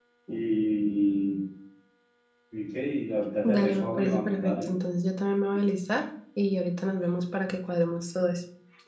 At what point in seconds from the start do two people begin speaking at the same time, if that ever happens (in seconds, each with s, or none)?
3.4 s